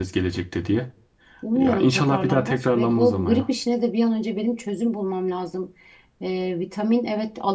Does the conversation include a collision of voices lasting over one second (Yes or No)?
Yes